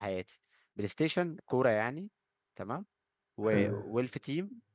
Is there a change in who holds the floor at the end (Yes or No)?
No